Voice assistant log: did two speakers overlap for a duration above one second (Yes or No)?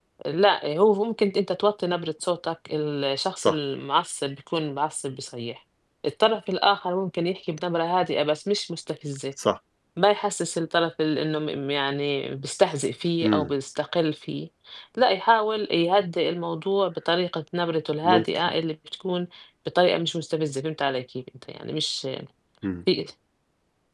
No